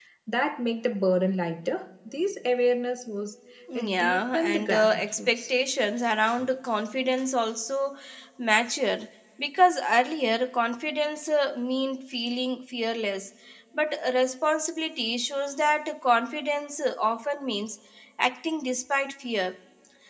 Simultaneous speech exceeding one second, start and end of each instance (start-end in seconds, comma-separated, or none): 3.8-5.5